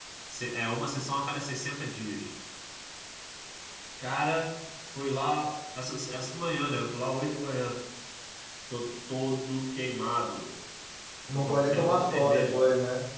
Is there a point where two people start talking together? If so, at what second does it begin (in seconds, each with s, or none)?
11.3 s